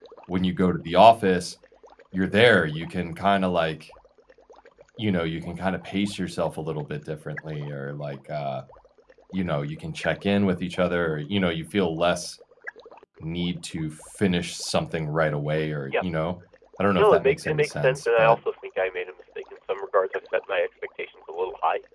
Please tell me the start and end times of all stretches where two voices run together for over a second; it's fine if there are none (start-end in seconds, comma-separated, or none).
17.0-18.4